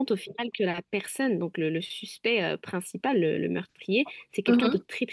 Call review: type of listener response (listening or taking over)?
listening